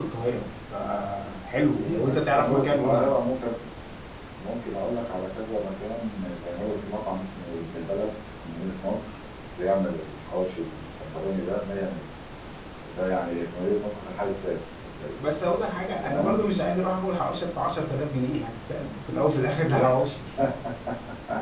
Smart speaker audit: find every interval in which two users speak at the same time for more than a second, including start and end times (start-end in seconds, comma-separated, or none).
1.8-3.1